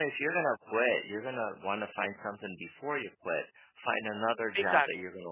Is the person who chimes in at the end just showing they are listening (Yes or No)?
Yes